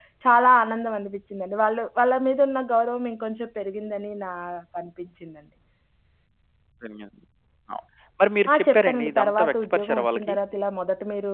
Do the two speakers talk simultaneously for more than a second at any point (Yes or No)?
Yes